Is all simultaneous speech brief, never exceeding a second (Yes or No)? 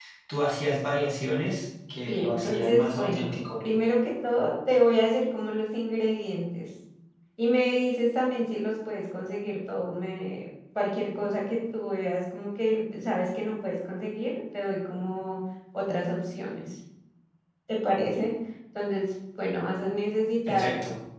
No